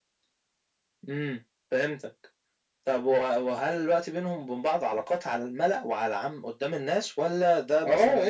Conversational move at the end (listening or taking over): taking over